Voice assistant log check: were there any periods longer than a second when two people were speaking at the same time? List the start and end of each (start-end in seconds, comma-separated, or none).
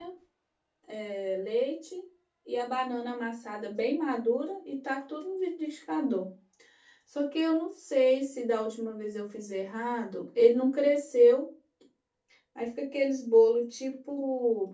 none